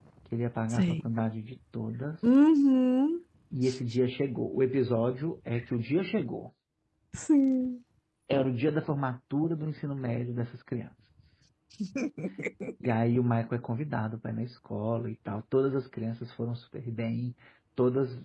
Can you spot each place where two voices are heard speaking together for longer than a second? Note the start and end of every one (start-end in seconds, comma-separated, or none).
none